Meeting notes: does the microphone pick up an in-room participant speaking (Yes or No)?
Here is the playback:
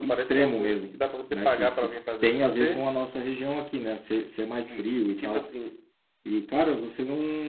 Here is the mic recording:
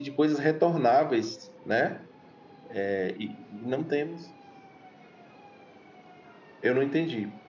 Yes